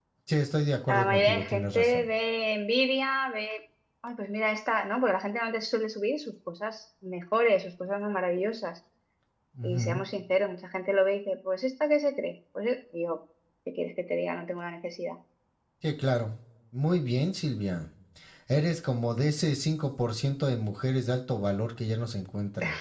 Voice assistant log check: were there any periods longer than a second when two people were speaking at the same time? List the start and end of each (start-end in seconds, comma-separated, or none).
0.9-2.1